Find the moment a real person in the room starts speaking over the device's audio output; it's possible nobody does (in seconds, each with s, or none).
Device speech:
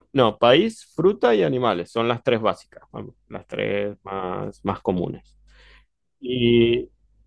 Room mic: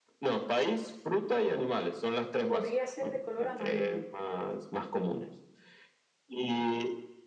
2.4 s